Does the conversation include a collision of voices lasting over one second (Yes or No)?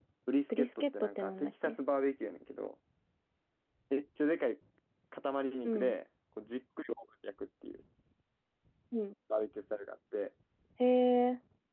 Yes